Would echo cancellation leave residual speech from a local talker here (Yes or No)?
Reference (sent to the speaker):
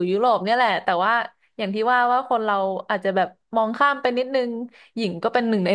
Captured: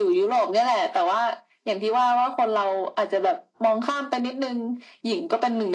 No